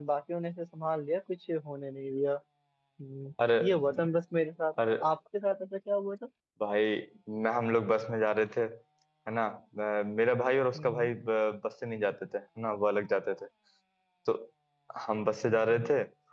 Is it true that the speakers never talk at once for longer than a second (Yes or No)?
Yes